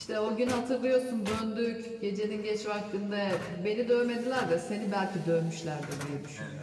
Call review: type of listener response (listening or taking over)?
taking over